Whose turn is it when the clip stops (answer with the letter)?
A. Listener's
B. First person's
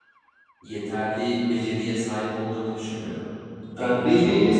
A